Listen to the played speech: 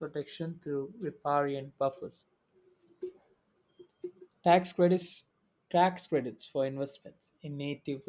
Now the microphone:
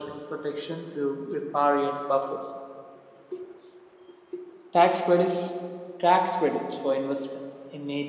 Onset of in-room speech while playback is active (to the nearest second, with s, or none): none